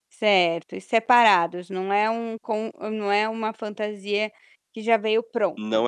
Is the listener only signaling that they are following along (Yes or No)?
No